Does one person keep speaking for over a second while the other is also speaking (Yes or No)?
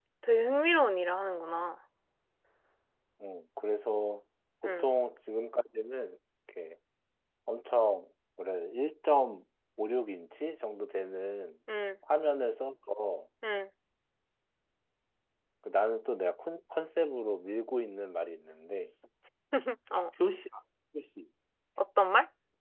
No